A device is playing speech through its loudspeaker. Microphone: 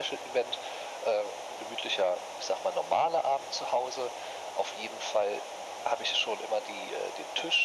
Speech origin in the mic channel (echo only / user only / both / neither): echo only